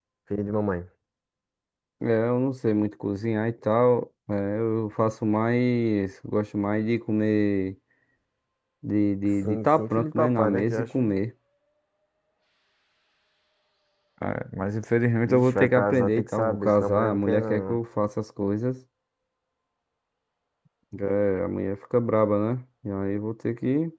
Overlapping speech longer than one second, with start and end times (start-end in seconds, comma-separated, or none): 9.4-11.0, 15.3-17.8